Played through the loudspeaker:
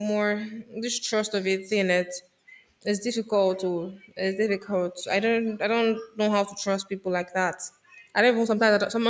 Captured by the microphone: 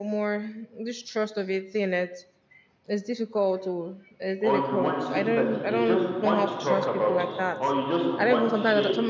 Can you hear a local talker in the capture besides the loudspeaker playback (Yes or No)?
Yes